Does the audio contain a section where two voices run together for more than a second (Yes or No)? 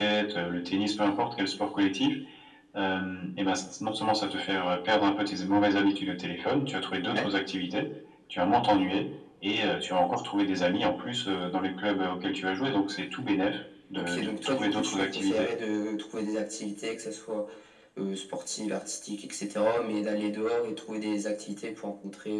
Yes